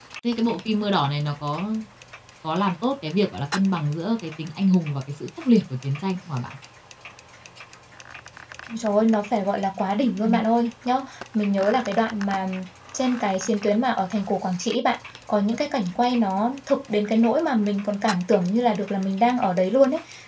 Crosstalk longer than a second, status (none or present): none